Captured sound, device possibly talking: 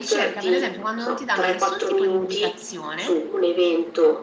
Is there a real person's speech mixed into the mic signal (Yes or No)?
Yes